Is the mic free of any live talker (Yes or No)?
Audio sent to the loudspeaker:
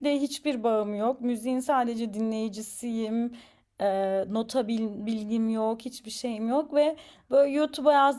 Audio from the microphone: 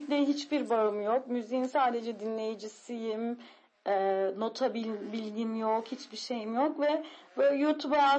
Yes